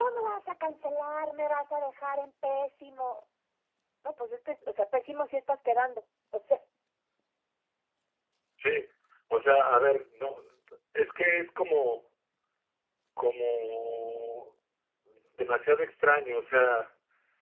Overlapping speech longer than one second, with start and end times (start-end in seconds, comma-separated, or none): none